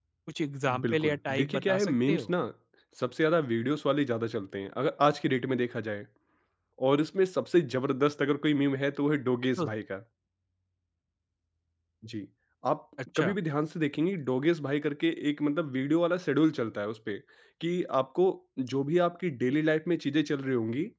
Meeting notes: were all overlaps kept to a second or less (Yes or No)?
No